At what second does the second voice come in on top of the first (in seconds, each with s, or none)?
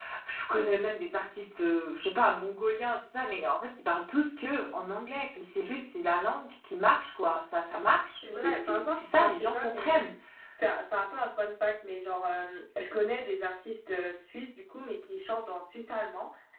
8.2 s